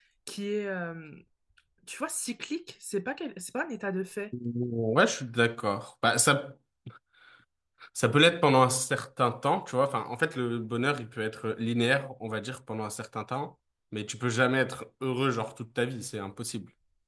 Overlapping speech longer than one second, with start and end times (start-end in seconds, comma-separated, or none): none